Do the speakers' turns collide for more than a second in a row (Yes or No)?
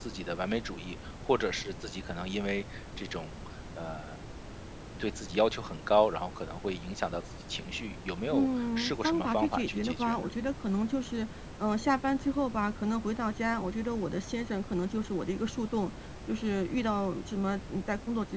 Yes